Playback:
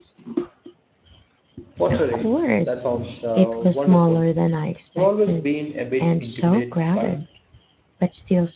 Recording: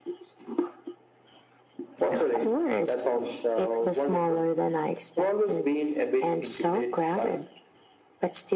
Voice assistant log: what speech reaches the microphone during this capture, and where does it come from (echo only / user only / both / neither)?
echo only